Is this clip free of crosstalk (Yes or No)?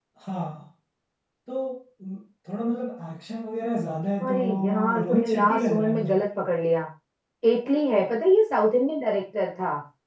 No